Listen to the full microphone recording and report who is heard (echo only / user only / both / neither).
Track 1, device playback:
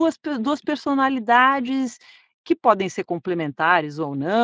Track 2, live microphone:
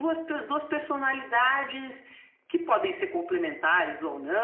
echo only